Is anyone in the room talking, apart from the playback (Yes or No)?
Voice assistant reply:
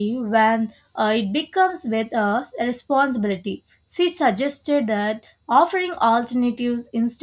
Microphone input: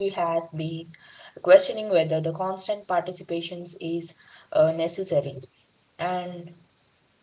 Yes